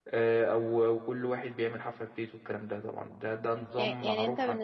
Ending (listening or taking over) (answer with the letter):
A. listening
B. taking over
B